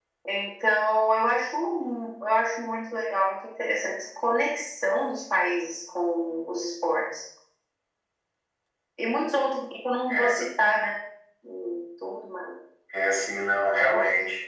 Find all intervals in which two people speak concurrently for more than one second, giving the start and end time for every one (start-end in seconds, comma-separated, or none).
none